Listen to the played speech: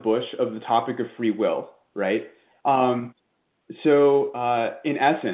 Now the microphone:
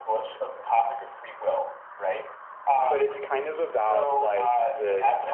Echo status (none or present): present